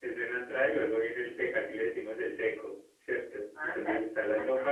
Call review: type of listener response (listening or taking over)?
listening